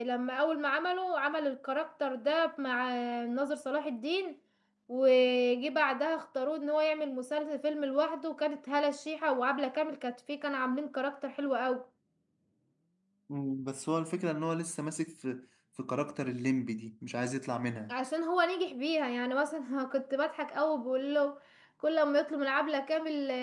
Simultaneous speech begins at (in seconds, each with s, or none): none